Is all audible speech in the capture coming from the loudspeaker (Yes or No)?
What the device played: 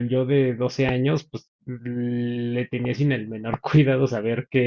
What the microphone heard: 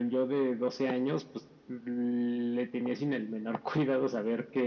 Yes